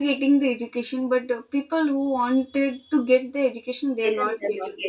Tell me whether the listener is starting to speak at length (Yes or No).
Yes